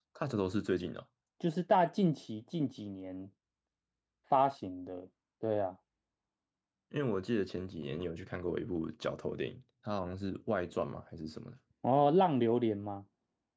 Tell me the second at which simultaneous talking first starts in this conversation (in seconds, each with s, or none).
none